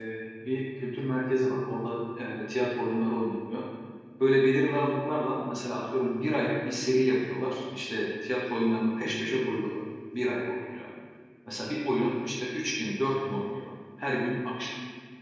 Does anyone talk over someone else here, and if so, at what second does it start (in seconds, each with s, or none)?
none